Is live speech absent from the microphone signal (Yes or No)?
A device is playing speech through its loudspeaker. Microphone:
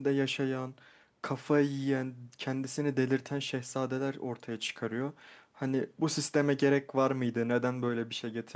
No